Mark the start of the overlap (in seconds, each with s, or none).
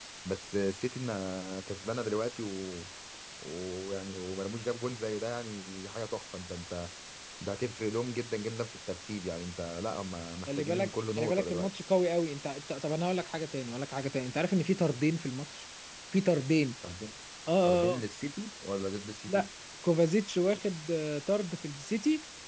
10.5 s